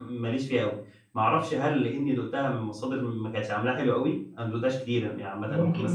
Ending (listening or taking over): taking over